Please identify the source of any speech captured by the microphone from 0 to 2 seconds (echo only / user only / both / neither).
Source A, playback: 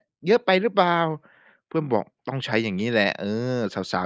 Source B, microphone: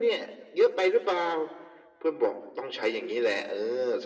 echo only